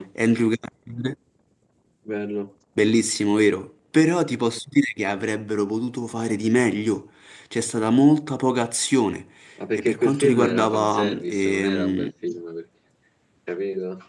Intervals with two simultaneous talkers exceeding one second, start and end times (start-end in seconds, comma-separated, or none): 9.7-12.1